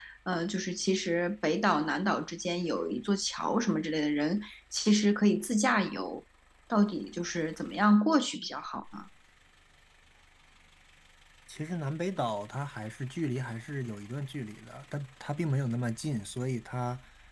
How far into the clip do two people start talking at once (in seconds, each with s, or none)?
none